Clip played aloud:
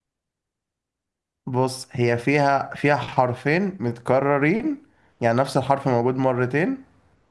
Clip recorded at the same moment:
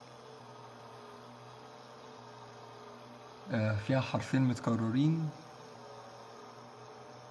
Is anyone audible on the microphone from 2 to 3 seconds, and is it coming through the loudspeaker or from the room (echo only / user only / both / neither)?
neither